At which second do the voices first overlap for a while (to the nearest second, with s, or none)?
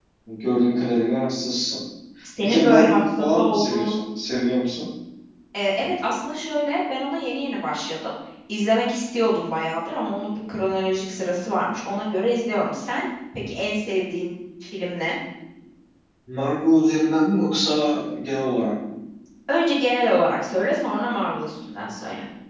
2 s